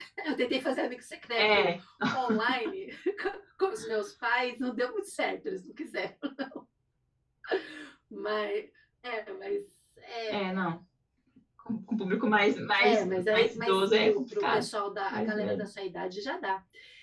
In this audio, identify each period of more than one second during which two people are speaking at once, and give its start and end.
12.8-14.6

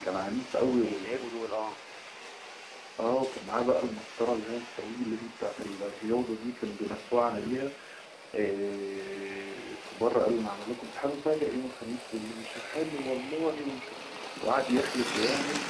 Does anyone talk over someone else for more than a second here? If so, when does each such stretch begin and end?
none

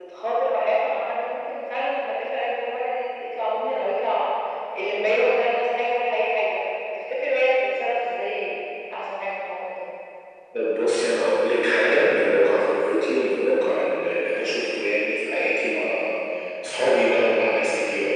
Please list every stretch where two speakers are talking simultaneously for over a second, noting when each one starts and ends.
none

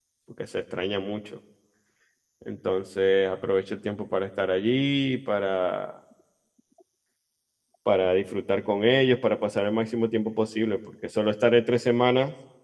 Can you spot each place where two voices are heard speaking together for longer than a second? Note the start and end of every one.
none

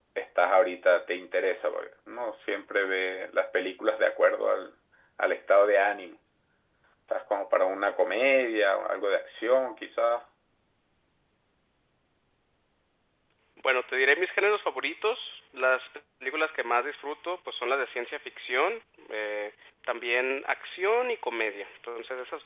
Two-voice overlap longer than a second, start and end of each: none

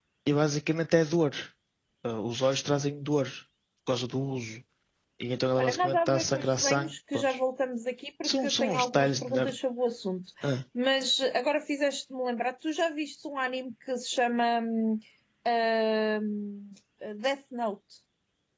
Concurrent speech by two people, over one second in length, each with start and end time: 5.6-7.4, 8.2-9.5

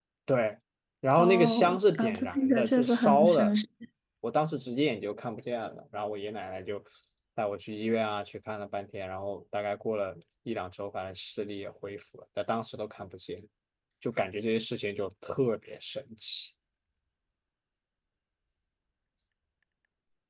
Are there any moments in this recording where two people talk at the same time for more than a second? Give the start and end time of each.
1.1-3.5

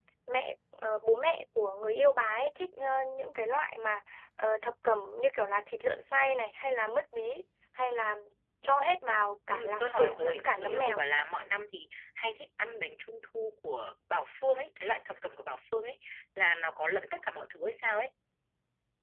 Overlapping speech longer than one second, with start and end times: 9.5-11.0

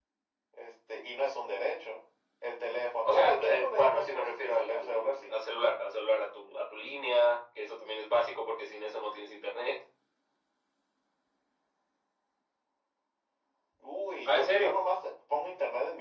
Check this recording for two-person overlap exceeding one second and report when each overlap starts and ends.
3.0-5.3

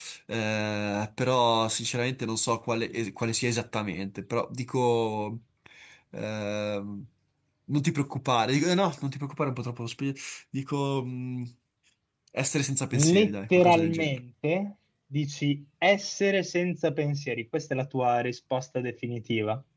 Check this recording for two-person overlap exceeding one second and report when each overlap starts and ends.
12.9-14.2

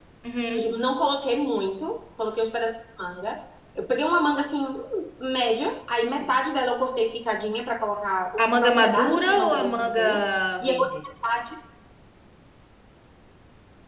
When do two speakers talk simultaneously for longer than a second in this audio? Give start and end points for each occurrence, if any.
8.4-10.1

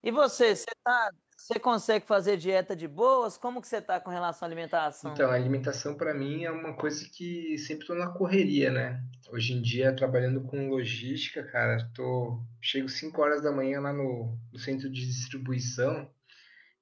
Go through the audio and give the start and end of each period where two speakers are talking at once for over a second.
none

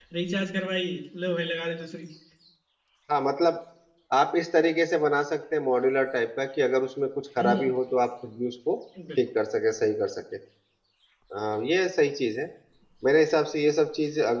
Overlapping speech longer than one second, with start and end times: none

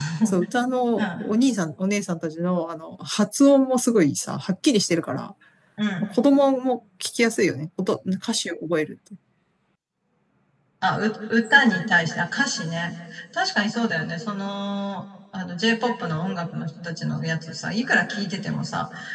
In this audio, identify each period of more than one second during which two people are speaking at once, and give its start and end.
none

